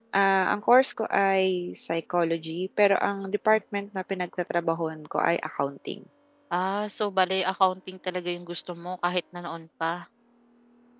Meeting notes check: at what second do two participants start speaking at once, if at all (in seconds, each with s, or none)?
none